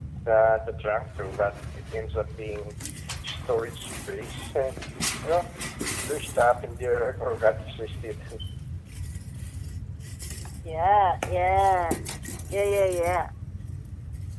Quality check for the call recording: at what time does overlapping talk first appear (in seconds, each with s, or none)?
none